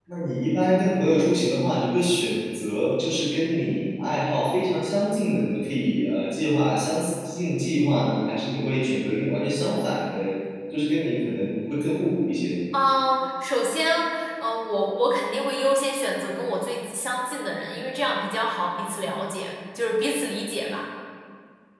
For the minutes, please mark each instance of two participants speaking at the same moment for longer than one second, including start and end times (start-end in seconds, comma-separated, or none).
none